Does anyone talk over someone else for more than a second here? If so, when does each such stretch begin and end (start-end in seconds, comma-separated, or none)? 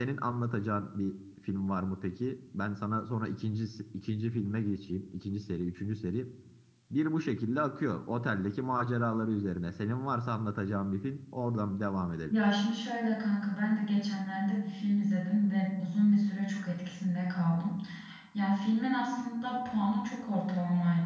none